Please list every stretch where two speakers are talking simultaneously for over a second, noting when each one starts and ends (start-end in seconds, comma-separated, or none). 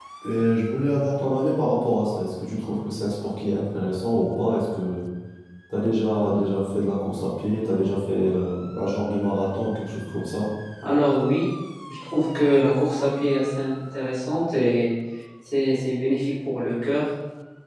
none